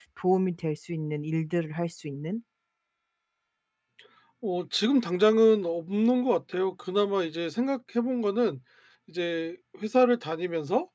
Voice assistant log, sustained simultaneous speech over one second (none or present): none